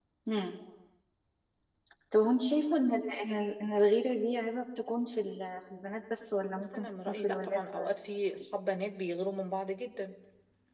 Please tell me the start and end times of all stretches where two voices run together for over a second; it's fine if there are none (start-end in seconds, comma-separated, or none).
6.5-7.9